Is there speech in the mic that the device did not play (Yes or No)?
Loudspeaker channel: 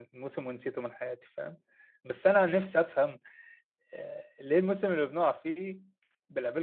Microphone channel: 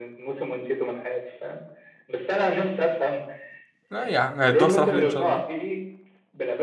Yes